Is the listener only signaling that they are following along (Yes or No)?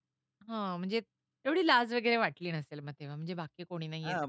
No